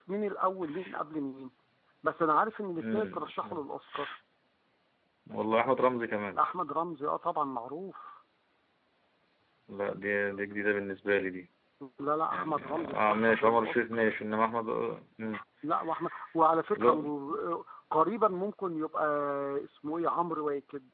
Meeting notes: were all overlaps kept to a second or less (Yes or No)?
No